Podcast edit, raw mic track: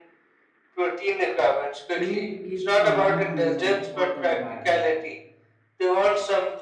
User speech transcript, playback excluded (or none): clean keeps the mind cleaner for the entire day.